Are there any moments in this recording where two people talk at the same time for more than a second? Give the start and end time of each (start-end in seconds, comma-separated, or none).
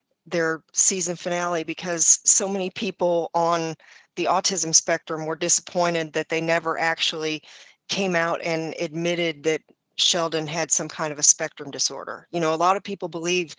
none